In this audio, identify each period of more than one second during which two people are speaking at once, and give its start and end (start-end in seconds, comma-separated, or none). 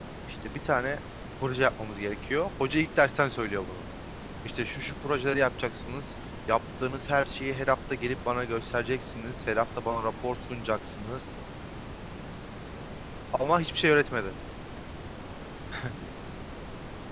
none